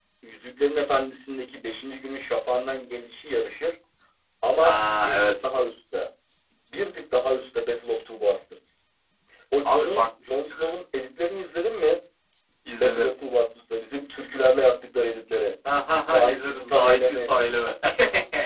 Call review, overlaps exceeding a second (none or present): present